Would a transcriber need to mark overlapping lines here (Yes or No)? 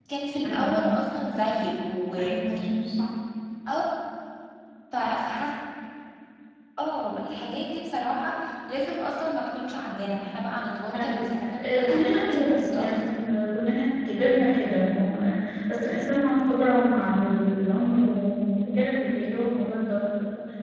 Yes